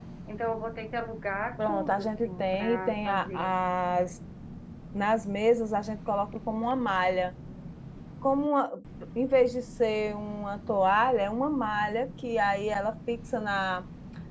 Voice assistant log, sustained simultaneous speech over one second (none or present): present